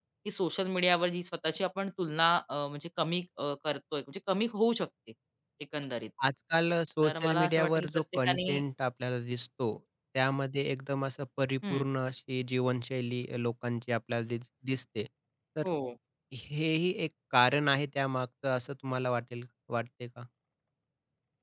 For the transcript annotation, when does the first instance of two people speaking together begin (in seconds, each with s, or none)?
7.0 s